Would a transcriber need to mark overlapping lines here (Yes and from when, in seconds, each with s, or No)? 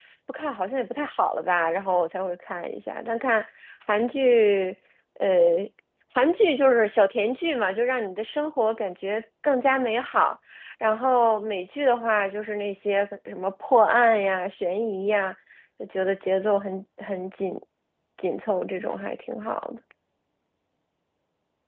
No